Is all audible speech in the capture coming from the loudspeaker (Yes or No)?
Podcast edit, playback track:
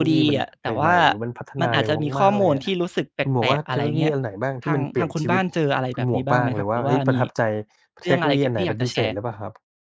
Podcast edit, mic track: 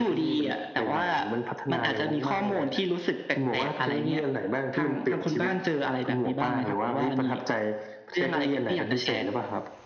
Yes